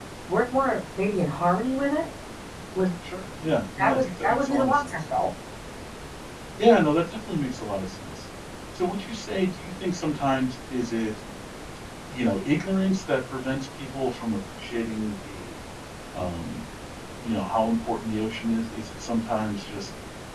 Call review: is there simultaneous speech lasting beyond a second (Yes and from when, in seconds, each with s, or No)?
Yes, from 3.8 s